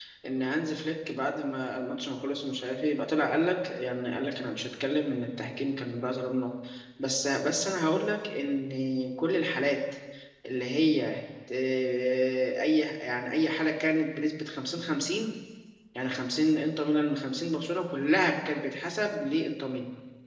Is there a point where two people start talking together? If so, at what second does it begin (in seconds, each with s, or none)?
none